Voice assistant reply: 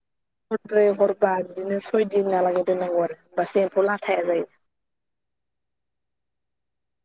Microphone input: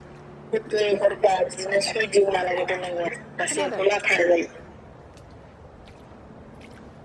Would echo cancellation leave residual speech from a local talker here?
Yes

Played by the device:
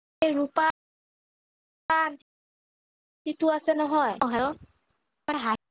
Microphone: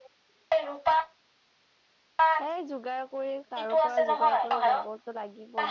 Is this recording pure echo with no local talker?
No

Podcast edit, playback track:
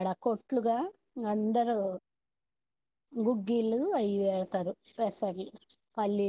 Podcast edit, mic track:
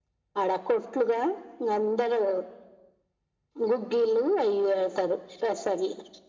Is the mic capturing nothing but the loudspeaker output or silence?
Yes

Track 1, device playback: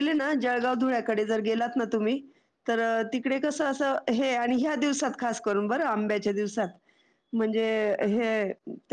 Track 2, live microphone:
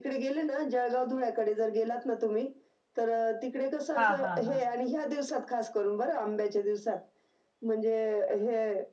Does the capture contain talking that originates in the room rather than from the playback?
Yes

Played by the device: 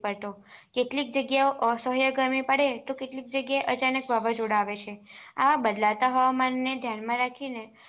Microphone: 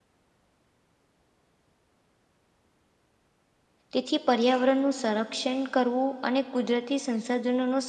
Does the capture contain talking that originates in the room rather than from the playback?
Yes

